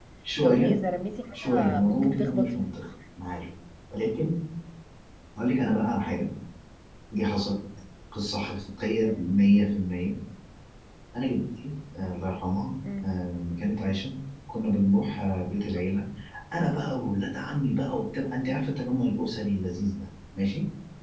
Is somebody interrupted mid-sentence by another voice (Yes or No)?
Yes